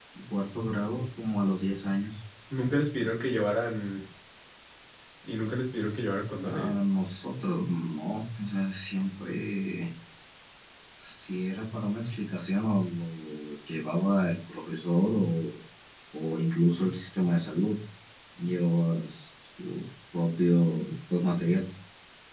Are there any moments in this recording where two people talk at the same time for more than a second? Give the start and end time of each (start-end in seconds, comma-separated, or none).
none